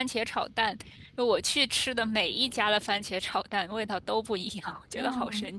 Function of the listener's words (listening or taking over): taking over